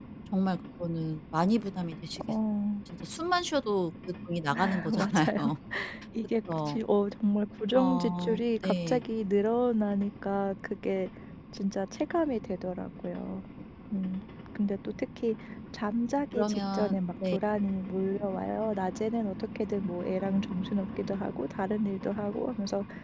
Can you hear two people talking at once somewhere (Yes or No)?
Yes